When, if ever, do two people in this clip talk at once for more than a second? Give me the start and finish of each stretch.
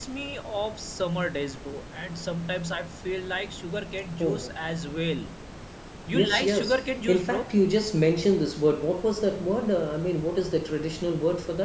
6.1-7.5

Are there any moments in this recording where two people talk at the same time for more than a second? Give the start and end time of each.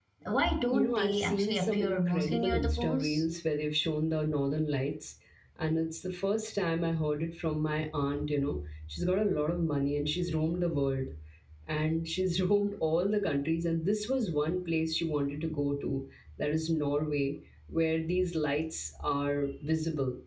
0.7-3.2

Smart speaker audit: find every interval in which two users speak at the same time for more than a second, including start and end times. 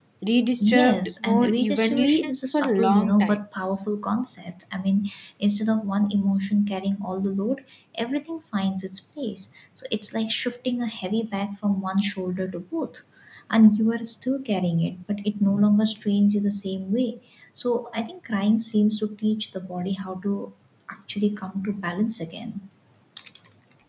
0.6-3.4

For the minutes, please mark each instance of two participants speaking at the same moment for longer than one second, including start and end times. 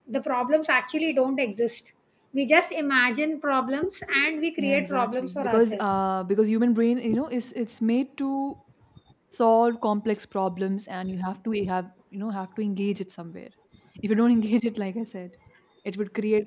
4.6-6.0

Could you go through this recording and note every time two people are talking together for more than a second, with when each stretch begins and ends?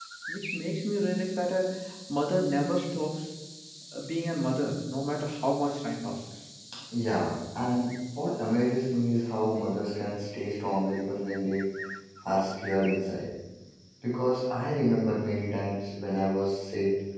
none

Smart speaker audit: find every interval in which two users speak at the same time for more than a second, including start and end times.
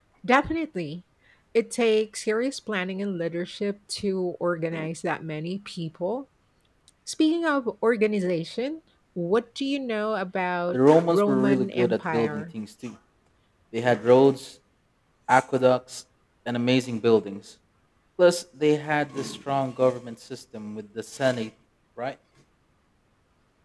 10.7-12.4

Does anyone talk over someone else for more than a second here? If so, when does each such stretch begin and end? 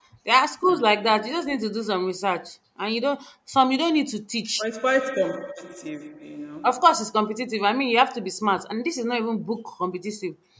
none

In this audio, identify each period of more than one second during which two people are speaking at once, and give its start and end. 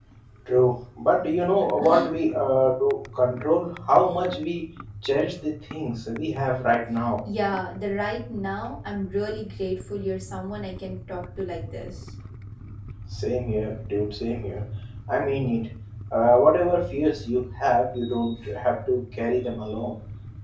none

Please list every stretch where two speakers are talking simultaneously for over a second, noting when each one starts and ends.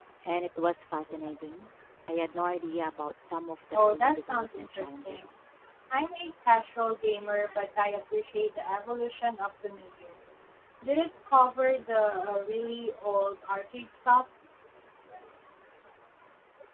3.7-5.3

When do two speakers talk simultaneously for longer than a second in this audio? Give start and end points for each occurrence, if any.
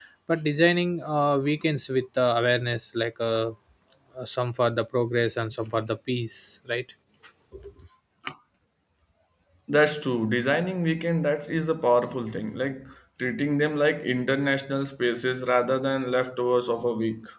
none

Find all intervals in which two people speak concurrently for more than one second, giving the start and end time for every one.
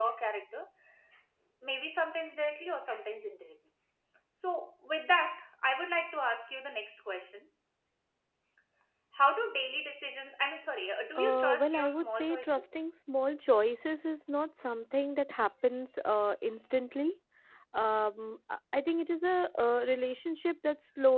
11.2-12.6

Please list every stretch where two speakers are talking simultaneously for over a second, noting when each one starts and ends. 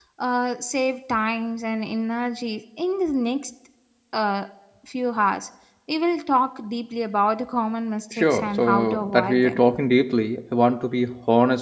8.1-9.6

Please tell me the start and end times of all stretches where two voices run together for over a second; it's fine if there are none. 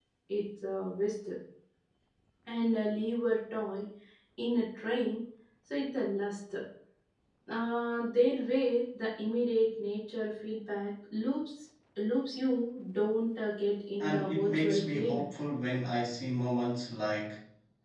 14.0-15.2

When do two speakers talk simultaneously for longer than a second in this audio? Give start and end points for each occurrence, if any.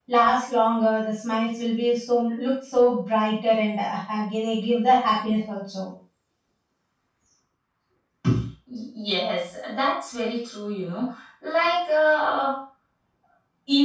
none

